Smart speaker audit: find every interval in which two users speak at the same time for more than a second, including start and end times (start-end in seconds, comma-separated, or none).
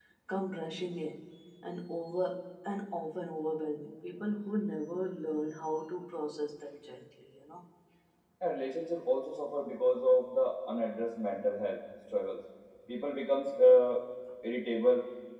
none